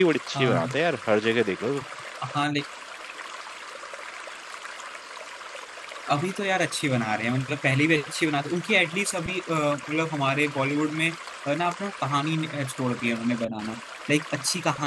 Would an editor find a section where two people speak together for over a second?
No

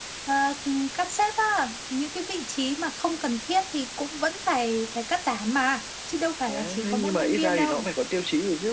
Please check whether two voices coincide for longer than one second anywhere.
Yes, from 6.5 s

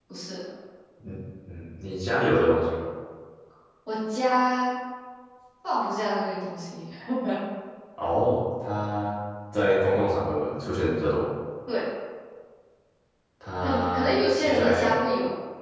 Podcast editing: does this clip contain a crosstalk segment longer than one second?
Yes, from 13.6 s

